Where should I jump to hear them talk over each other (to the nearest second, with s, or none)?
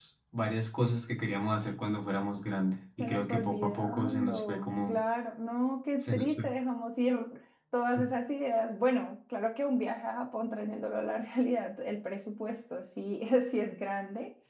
3 s